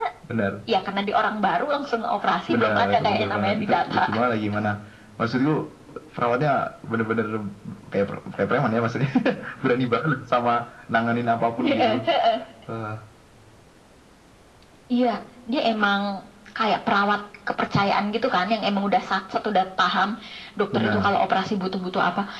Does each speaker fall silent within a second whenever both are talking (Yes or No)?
No